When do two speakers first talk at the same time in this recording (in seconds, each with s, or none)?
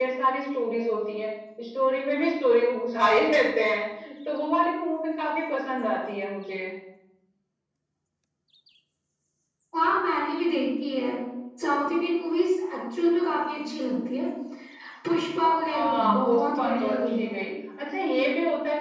15.7 s